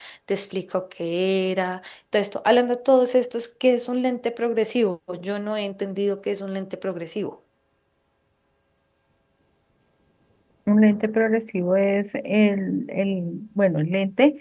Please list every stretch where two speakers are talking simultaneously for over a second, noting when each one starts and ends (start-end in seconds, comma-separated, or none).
none